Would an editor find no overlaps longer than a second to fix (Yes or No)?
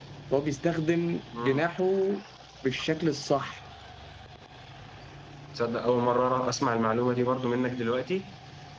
Yes